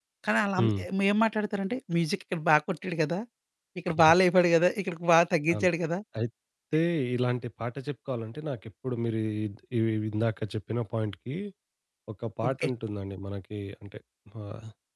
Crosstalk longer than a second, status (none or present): none